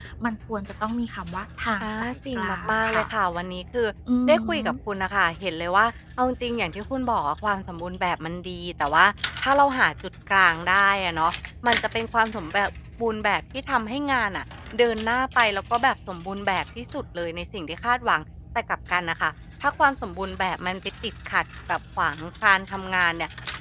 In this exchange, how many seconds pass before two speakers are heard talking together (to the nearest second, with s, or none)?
2 s